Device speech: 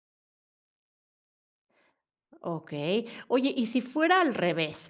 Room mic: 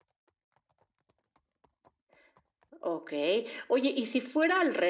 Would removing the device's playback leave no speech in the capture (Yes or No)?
Yes